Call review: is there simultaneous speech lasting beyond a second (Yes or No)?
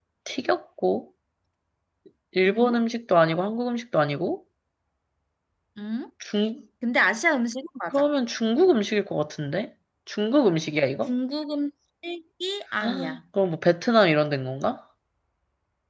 No